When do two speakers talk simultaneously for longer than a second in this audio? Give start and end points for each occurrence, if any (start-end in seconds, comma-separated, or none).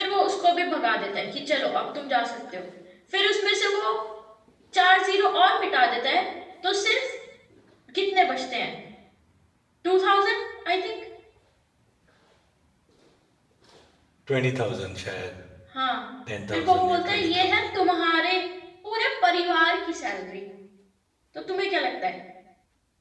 16.5-17.8